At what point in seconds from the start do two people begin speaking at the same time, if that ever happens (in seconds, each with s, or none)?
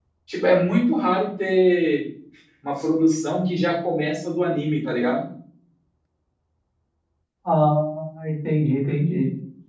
none